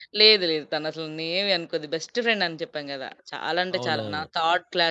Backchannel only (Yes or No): Yes